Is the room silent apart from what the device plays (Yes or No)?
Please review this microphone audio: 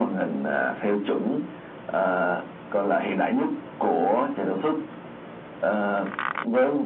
Yes